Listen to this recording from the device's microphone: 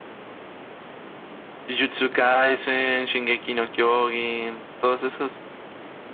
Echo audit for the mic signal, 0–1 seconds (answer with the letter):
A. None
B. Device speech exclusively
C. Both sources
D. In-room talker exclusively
A